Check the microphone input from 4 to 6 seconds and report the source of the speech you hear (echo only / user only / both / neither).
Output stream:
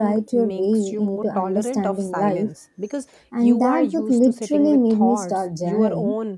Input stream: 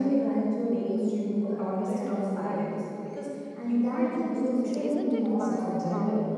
both